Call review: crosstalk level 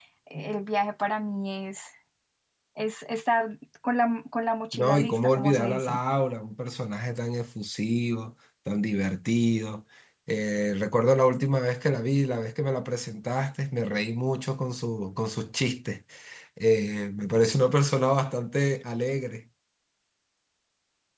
present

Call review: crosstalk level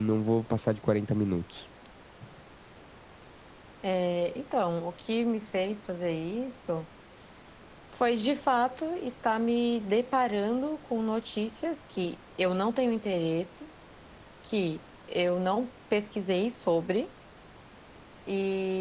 none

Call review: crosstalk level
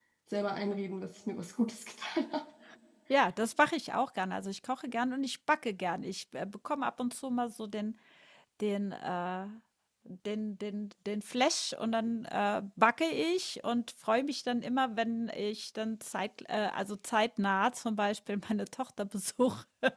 none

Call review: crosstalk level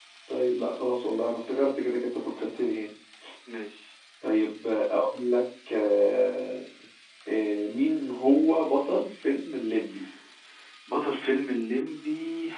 none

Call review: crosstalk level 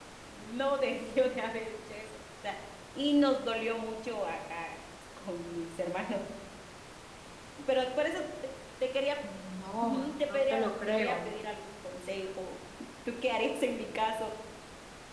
present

